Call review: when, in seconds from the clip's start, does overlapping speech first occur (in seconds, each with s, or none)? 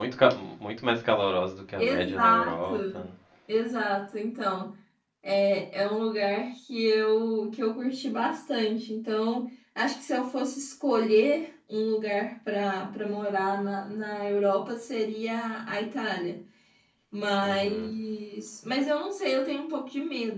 1.8 s